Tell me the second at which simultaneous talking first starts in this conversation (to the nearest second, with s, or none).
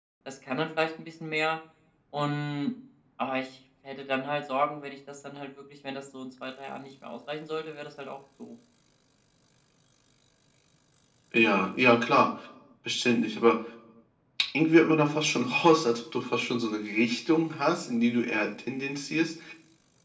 none